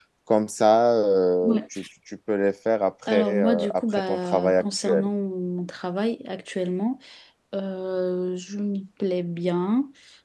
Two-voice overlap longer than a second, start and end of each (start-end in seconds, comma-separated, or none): 3.1-5.1